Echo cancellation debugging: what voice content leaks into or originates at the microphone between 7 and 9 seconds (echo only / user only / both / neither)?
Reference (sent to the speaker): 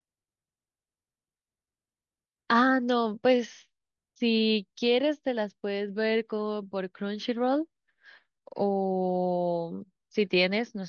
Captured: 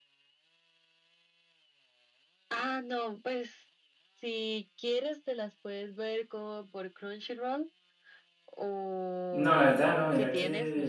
echo only